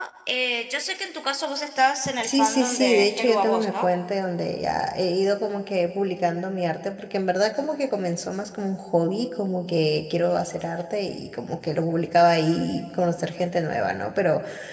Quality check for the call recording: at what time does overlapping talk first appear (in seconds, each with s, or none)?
2.2 s